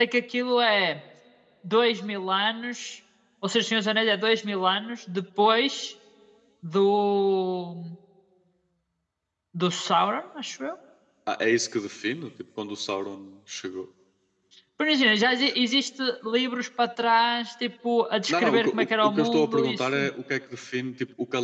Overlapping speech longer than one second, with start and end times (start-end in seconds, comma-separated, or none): 18.3-20.1